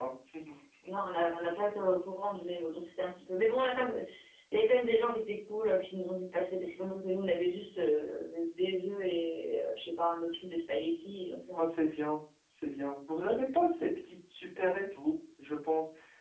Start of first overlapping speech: none

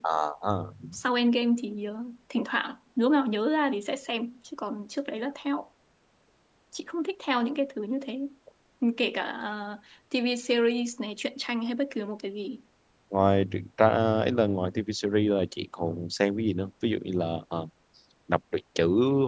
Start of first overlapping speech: none

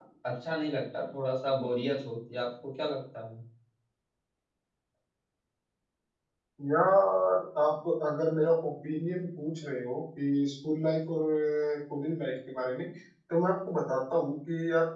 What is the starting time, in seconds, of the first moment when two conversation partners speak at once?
none

